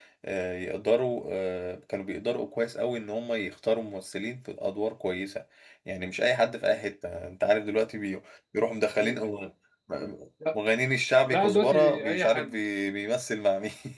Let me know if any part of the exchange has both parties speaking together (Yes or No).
Yes